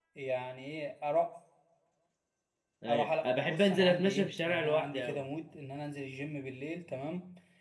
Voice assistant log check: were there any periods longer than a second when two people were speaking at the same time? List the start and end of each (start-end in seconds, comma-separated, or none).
2.9-5.2